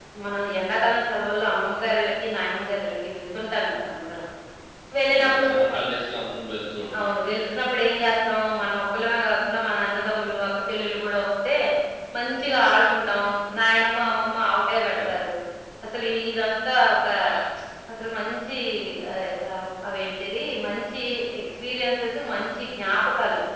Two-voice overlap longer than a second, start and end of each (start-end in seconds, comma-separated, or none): none